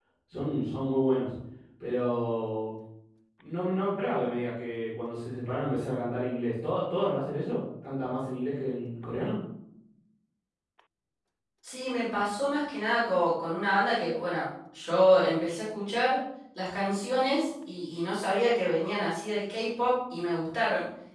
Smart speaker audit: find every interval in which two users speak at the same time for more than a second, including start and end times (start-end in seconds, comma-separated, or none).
none